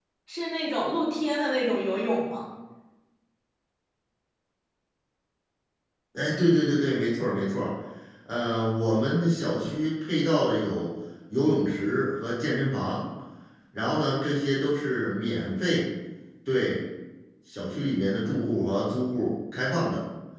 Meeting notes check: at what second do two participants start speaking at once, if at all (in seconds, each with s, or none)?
none